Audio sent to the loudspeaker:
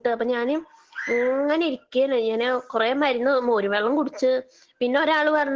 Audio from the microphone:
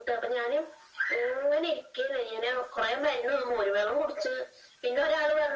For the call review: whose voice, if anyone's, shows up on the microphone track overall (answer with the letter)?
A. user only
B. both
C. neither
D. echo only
D